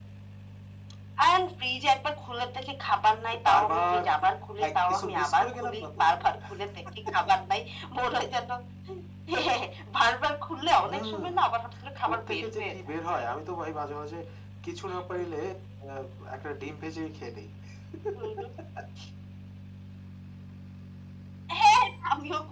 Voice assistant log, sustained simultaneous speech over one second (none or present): present